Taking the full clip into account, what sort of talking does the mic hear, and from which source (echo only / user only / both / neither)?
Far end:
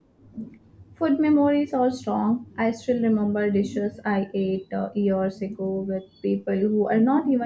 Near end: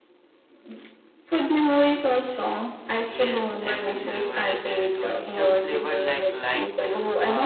both